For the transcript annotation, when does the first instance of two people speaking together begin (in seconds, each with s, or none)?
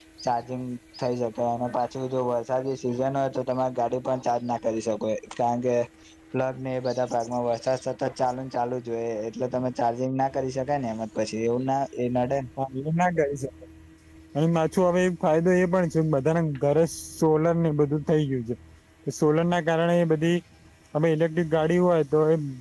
none